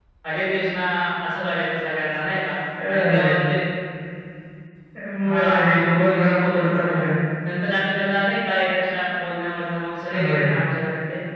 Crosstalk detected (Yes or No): Yes